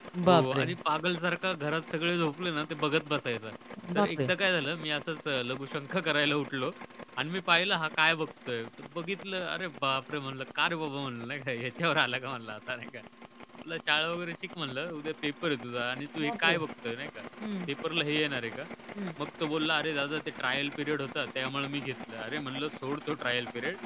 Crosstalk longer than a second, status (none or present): none